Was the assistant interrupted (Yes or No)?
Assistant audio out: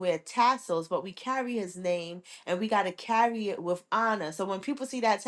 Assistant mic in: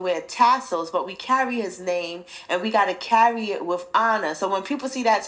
No